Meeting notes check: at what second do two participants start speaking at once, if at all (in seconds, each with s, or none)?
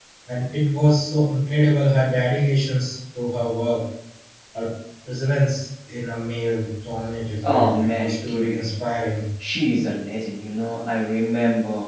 7.4 s